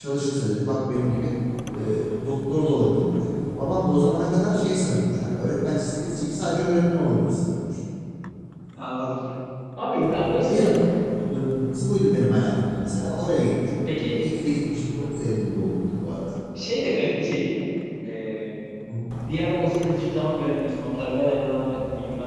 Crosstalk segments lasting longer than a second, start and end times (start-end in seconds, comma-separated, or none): none